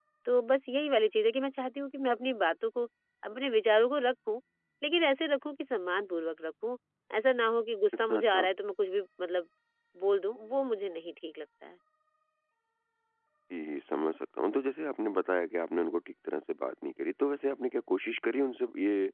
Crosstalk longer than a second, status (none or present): none